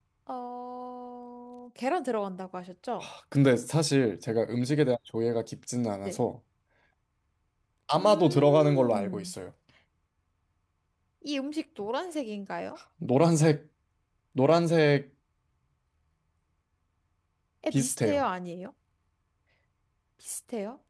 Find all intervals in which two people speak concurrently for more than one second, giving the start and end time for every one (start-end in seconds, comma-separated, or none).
8.0-9.3